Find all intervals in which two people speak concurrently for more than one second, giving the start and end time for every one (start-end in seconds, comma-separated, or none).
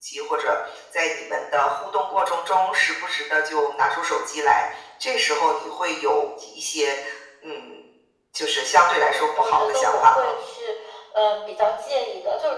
9.0-10.4